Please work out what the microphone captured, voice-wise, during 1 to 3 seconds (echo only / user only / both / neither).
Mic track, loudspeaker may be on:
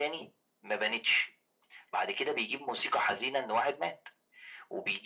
echo only